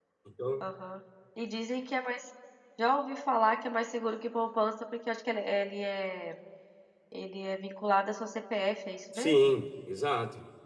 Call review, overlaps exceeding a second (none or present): none